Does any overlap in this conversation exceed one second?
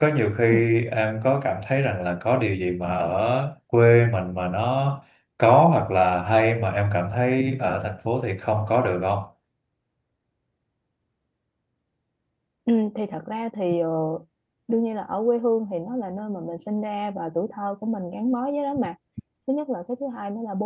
No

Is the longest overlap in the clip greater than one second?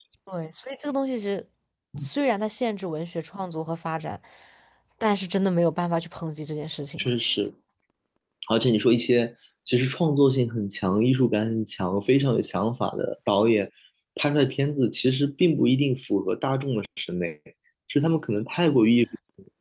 No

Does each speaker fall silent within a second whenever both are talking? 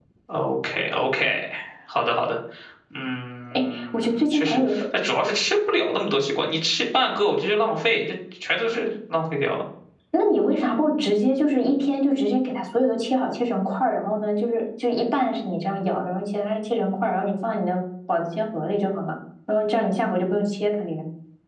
No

